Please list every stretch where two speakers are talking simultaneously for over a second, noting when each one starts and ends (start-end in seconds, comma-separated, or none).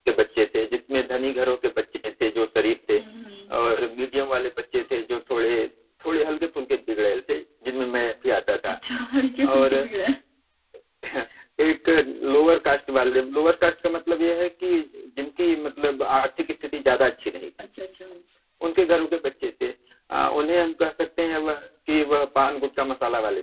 none